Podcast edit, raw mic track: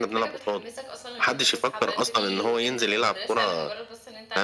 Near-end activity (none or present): present